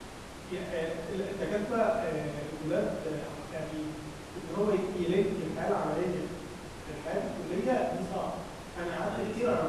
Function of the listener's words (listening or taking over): listening